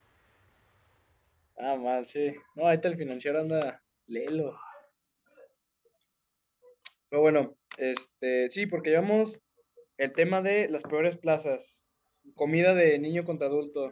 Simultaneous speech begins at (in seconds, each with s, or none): none